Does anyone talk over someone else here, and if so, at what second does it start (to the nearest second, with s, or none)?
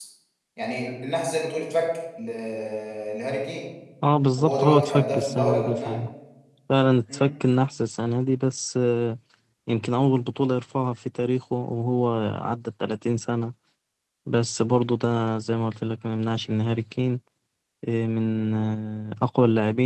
4 s